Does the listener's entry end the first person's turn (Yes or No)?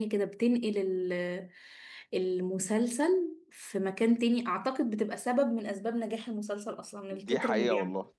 Yes